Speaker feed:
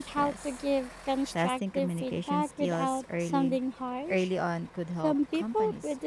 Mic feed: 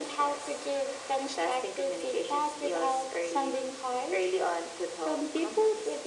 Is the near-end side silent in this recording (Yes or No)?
Yes